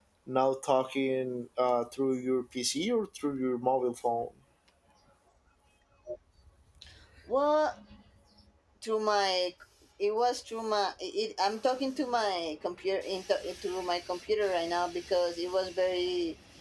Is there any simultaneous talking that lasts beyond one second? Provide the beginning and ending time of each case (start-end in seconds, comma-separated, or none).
none